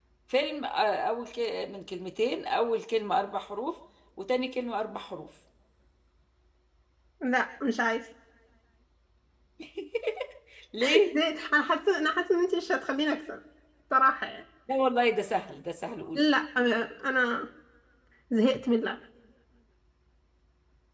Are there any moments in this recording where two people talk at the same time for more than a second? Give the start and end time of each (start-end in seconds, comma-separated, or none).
none